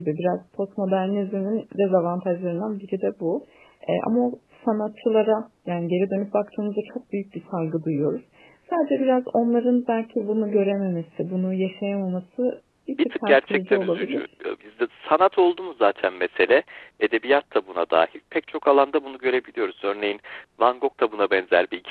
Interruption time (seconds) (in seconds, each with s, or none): 13.0 s